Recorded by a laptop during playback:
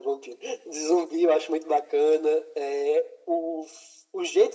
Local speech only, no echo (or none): none